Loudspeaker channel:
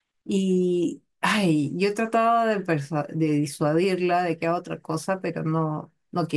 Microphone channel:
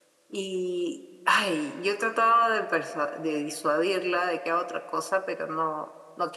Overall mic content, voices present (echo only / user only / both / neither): echo only